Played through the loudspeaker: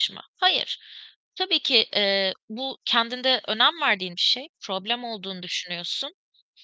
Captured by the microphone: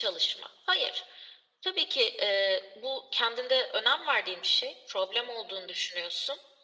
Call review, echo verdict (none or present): present